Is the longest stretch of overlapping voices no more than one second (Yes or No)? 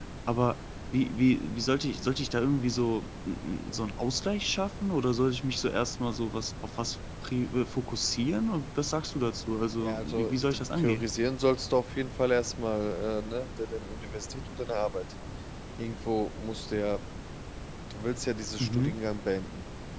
No